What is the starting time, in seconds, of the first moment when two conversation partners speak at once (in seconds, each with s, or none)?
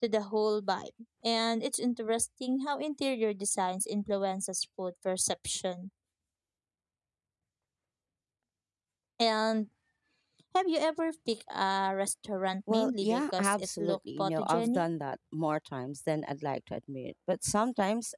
12.7 s